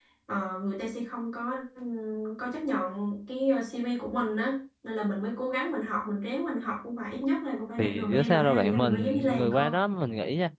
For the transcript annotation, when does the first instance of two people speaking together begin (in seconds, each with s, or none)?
7.8 s